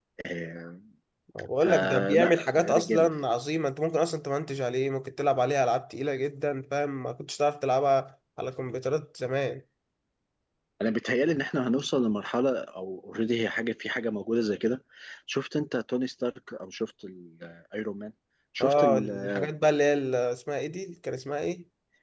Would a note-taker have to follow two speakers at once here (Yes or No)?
Yes